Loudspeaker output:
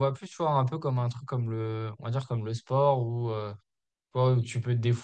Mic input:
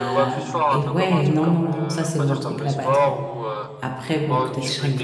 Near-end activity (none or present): present